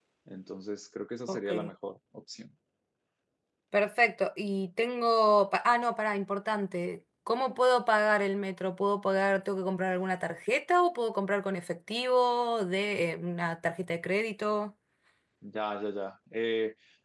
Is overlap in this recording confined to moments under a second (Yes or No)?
Yes